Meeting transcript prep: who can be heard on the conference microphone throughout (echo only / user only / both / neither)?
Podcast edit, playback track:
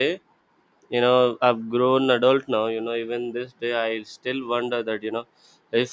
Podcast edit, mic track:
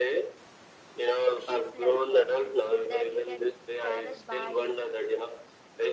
both